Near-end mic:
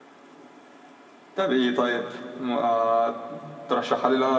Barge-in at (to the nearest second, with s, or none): none